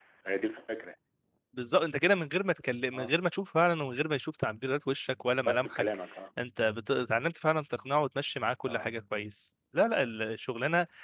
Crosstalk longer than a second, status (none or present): none